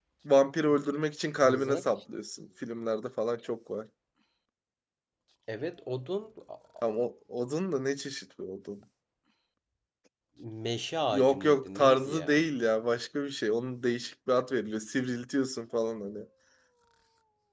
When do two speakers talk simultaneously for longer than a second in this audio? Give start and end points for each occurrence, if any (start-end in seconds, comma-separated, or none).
11.1-12.4